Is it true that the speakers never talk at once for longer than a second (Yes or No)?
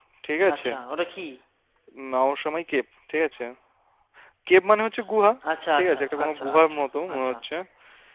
No